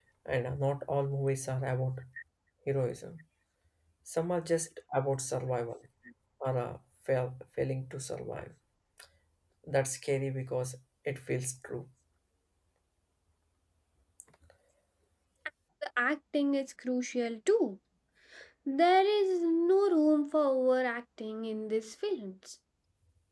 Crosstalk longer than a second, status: none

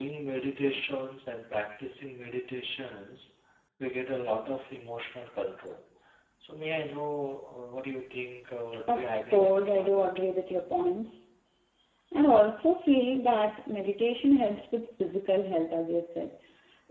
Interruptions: present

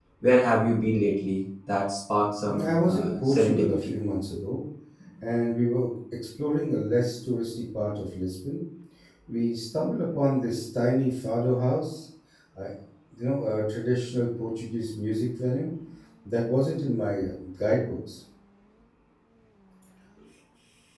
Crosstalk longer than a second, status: present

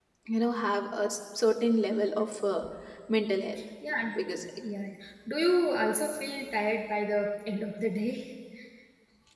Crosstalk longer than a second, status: none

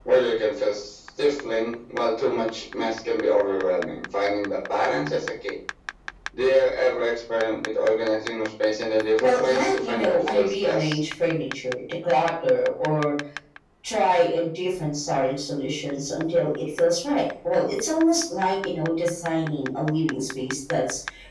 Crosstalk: present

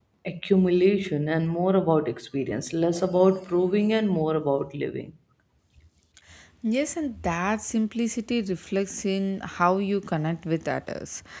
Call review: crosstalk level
none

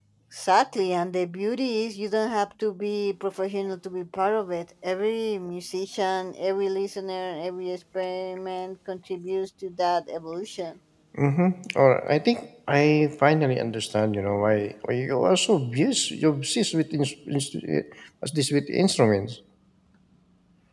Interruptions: none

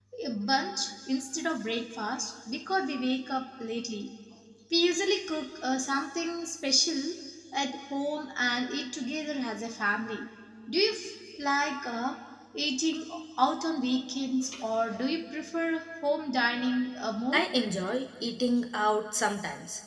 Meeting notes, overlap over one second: none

